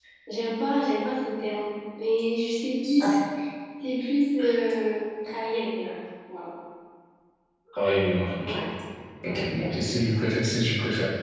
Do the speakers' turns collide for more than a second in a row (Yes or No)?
No